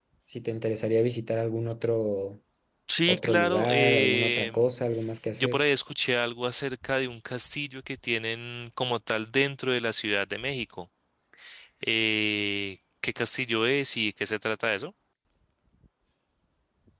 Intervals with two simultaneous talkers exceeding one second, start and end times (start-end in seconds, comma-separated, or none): 3.1-4.7